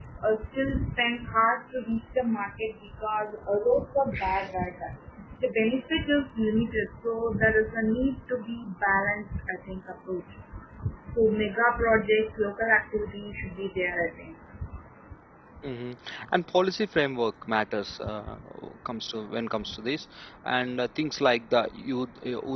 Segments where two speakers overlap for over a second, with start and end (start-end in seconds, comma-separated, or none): none